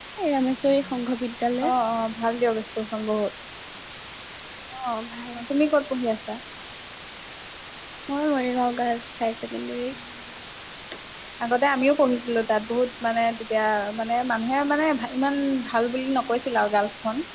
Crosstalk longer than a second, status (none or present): none